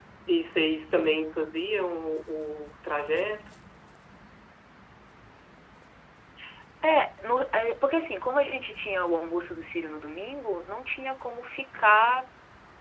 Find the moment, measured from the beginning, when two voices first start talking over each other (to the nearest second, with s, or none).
none